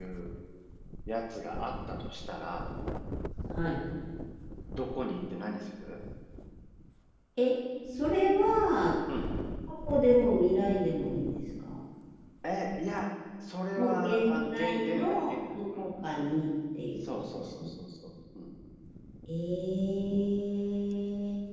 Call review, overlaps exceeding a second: present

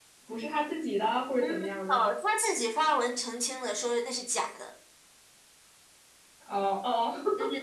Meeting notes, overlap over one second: none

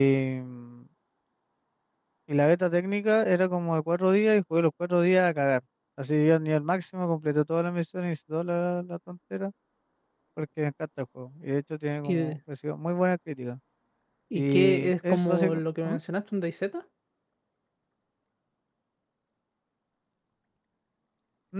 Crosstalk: present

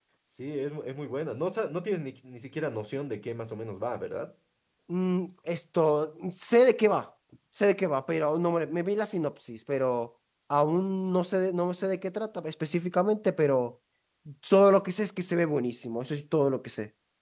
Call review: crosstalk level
none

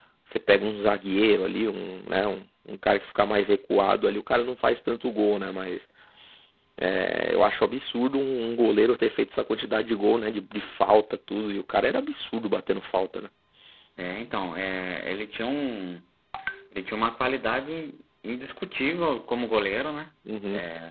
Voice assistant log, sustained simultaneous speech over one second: none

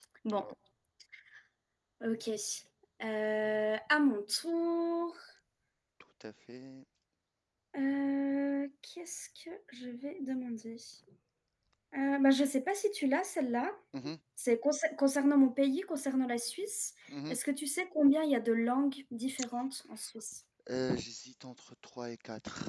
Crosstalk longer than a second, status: none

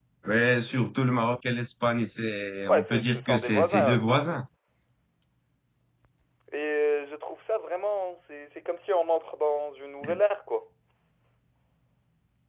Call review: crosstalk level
present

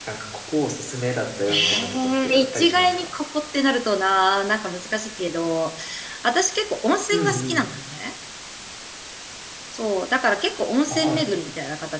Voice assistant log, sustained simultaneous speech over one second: present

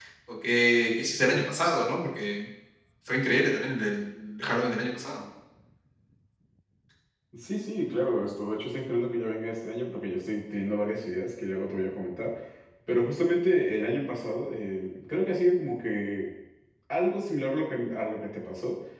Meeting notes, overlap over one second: none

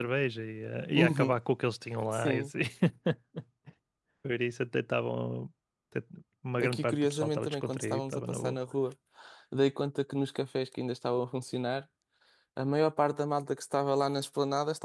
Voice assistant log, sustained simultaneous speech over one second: present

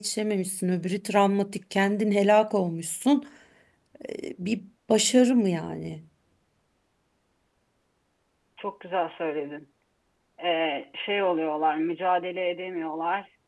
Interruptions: none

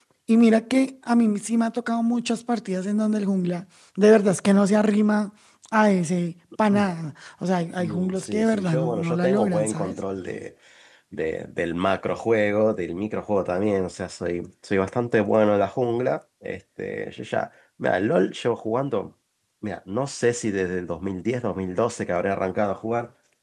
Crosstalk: present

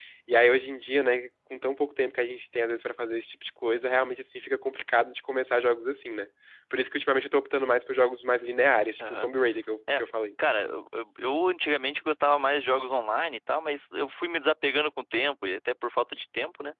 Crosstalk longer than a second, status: none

